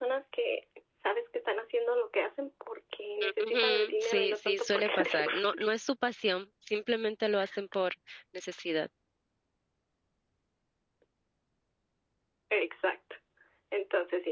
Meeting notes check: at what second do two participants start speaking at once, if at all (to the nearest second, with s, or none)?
3 s